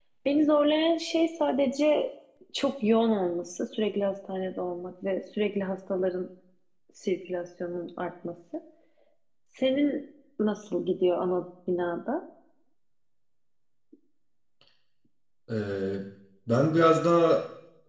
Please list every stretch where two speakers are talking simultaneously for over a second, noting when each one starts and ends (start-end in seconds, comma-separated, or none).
none